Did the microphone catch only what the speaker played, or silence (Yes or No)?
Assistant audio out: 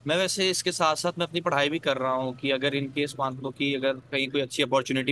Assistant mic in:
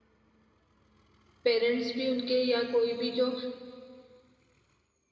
No